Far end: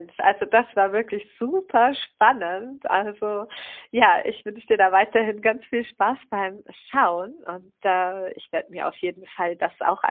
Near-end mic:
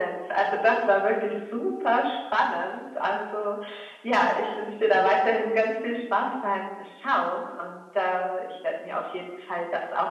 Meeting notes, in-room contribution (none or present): none